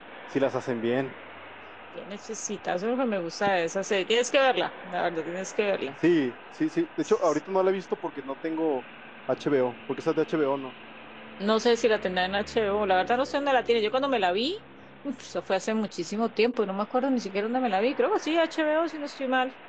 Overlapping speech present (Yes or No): No